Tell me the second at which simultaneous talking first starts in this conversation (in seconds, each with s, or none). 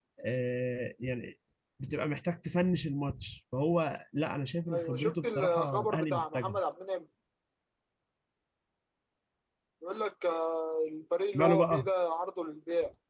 4.7 s